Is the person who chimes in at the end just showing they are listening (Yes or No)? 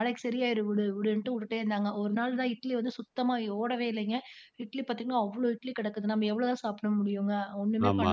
Yes